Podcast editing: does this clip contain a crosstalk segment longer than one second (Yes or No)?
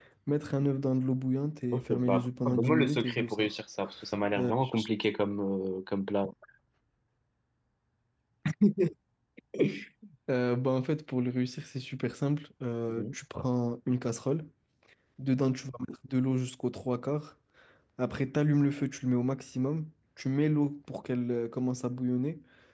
Yes